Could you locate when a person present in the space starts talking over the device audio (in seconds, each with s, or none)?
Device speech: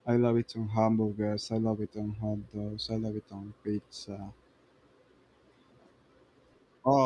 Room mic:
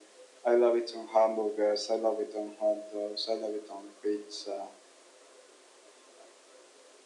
none